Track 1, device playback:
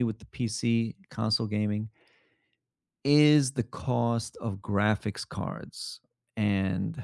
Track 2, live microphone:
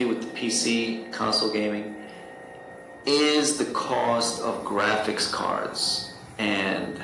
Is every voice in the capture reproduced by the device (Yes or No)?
Yes